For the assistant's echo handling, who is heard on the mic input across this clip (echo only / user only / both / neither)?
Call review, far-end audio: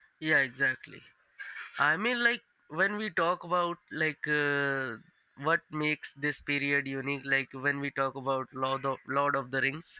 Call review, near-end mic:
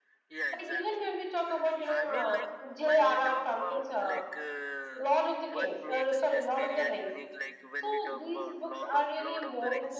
both